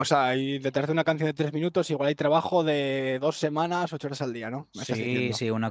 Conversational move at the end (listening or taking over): taking over